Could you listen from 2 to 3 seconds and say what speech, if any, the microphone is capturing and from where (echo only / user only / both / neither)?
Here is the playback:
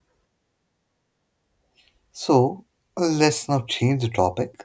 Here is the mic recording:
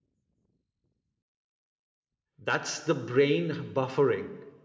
user only